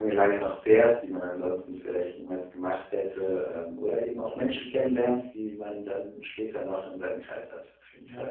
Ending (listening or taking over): taking over